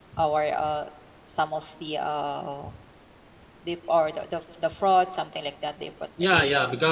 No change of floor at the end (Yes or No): No